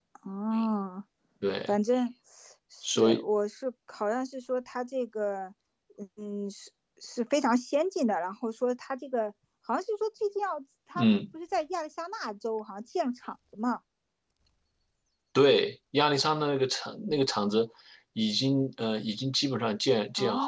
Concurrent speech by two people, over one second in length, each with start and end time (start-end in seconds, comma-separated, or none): none